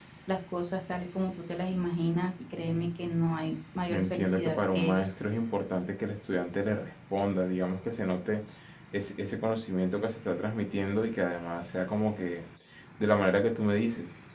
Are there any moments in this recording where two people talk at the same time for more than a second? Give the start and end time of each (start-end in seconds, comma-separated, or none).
3.9-5.1